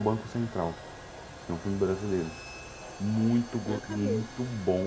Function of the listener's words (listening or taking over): listening